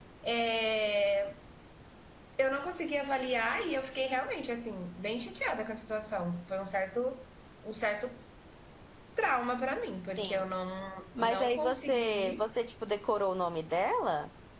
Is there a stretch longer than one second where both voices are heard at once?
Yes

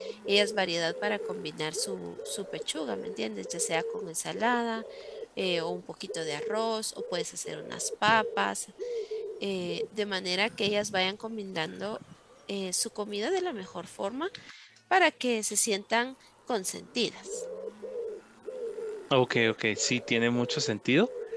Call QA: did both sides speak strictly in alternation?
Yes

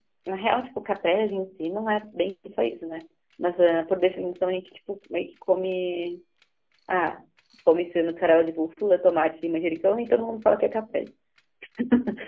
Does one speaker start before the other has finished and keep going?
No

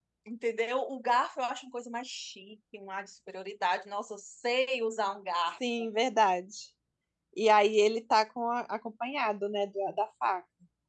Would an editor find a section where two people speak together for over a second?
No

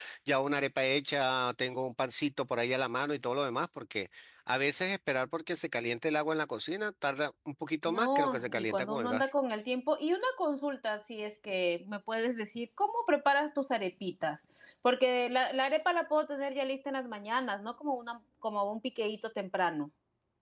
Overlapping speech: Yes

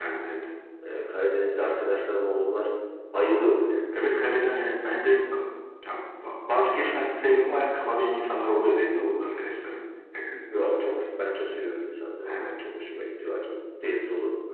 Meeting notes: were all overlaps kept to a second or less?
Yes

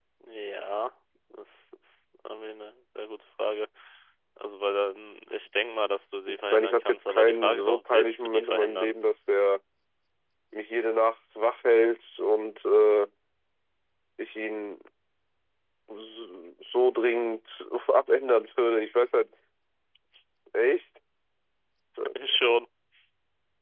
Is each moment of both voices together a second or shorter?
No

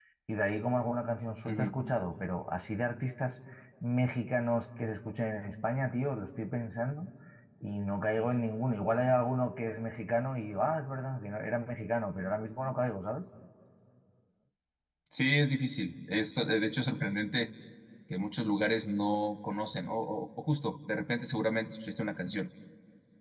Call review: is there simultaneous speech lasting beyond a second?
No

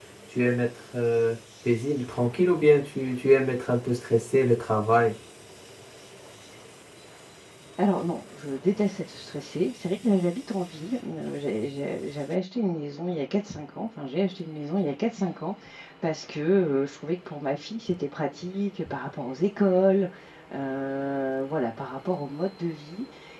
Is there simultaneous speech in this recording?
No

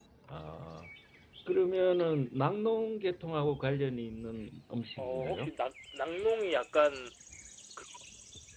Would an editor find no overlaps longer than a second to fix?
Yes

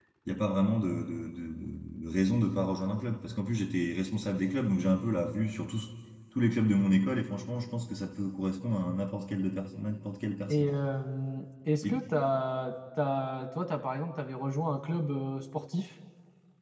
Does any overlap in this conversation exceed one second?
No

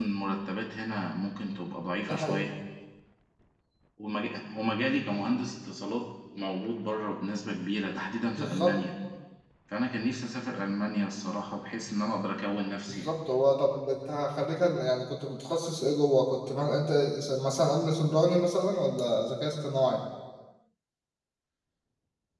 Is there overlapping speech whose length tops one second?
No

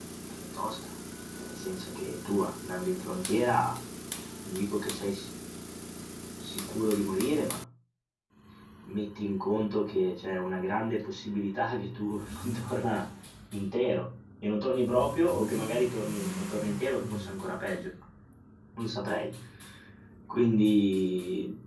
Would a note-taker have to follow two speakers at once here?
No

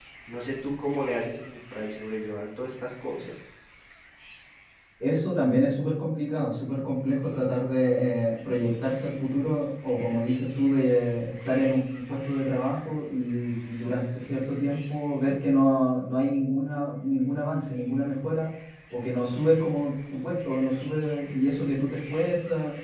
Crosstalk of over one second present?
No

